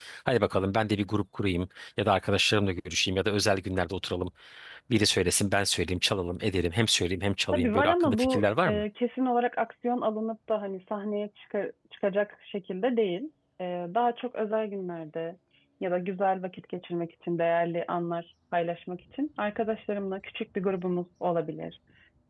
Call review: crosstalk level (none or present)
present